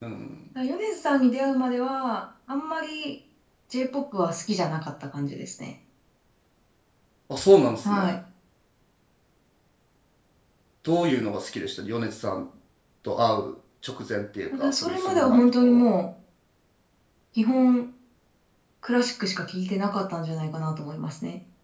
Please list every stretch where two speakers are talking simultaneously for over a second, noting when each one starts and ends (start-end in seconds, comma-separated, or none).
14.6-15.8